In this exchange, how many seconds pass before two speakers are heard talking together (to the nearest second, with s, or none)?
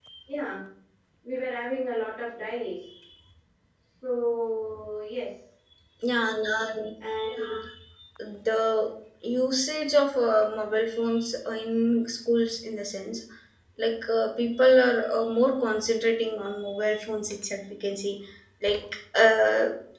none